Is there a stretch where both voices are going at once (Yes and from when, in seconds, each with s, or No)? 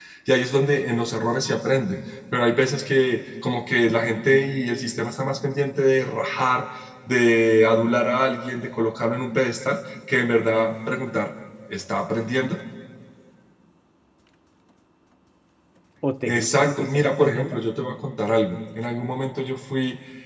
Yes, from 16.2 s